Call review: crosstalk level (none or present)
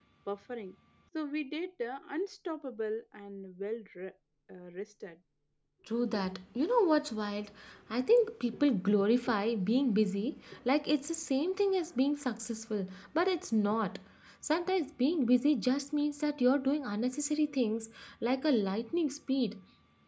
none